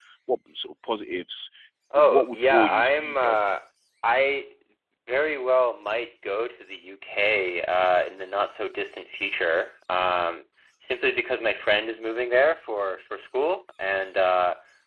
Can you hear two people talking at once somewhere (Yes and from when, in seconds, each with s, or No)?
Yes, from 2.0 s